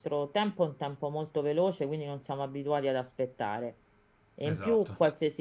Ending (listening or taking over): listening